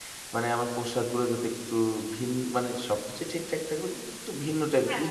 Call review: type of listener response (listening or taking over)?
listening